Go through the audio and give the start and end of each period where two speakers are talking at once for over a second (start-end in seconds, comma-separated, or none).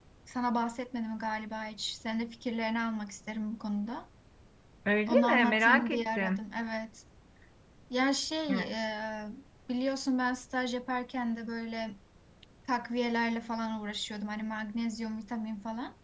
5.1-6.4